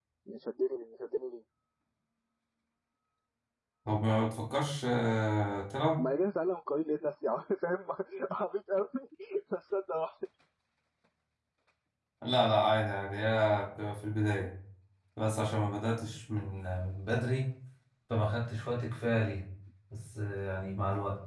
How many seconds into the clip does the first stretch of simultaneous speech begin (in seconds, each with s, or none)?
none